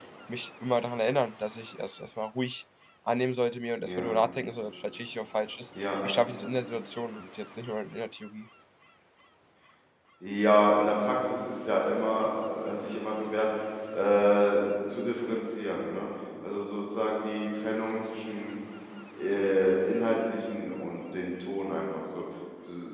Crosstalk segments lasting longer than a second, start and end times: none

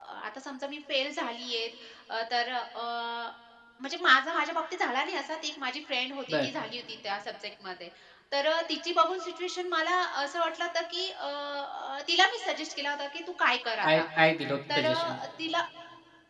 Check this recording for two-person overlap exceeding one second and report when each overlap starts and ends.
none

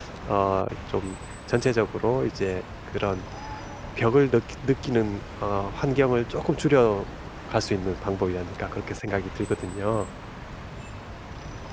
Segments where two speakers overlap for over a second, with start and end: none

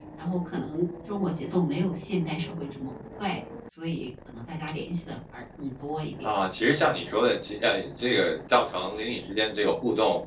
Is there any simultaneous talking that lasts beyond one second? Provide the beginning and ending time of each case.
none

